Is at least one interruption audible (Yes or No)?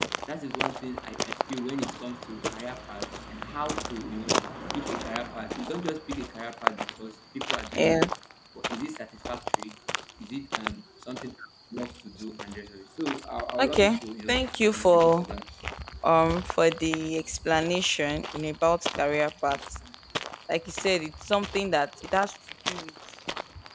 Yes